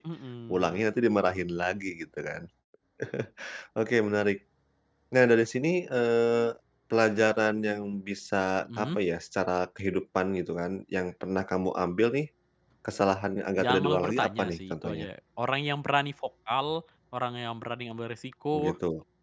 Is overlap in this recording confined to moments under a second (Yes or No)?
No